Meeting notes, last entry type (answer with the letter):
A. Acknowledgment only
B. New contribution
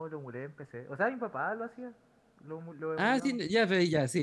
B